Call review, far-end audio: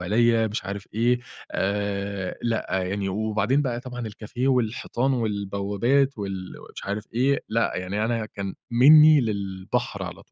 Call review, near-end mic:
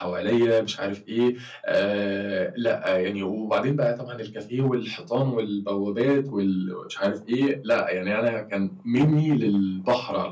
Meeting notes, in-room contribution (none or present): none